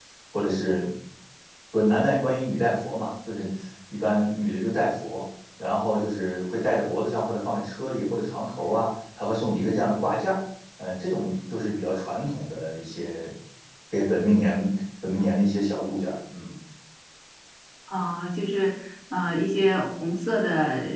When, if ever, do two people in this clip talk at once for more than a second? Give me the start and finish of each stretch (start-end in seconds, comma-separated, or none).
none